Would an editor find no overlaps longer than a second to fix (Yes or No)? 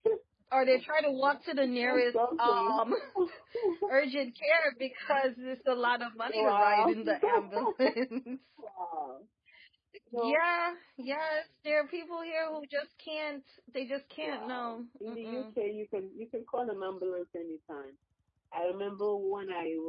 No